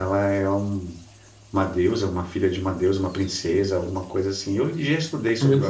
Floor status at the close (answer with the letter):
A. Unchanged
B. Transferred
B